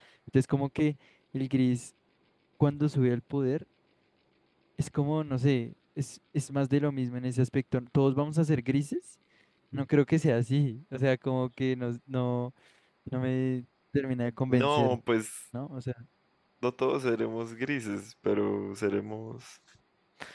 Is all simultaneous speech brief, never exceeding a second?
Yes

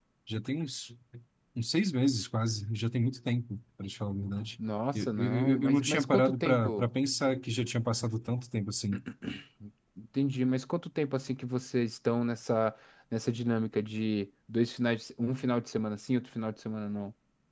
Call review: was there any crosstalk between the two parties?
Yes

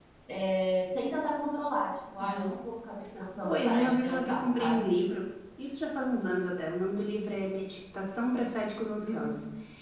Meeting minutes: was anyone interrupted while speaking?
Yes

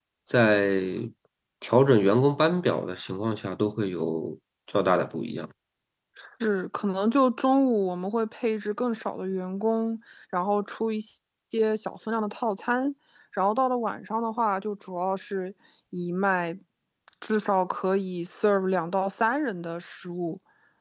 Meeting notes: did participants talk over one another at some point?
No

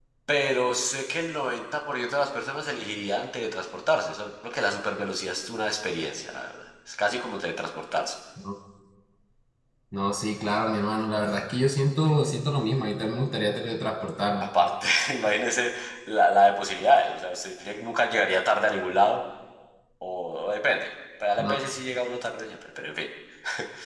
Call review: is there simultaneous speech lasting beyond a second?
No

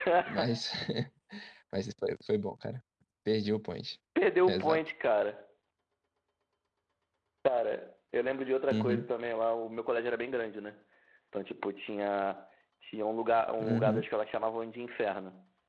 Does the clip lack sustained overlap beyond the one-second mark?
Yes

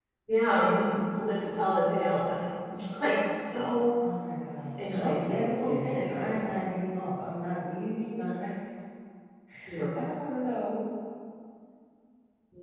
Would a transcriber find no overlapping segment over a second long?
No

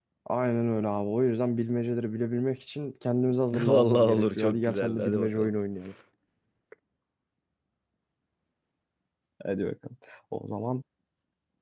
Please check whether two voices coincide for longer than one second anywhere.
Yes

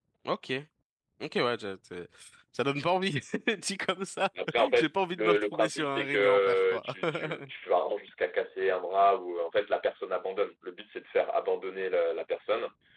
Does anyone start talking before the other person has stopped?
Yes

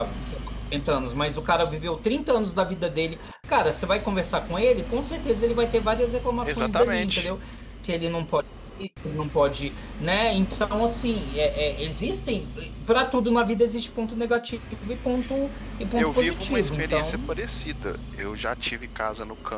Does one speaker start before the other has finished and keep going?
Yes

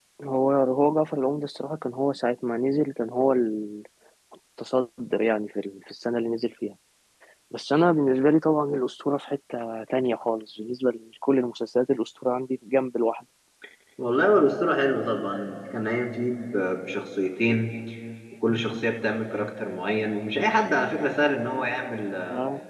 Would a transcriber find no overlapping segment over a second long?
Yes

